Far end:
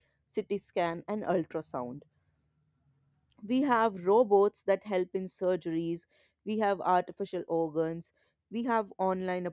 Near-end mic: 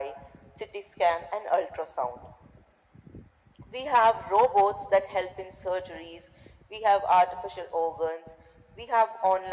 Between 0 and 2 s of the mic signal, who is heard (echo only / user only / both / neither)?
echo only